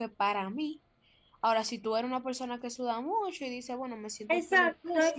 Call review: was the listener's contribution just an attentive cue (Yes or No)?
No